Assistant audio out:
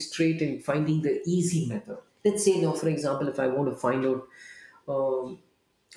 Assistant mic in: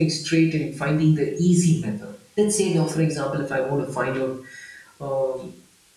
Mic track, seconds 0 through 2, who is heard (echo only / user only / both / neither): echo only